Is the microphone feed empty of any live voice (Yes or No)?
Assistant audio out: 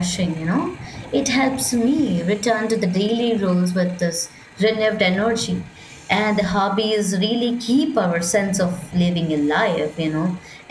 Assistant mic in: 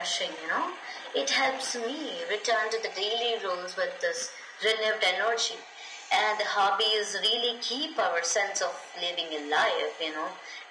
Yes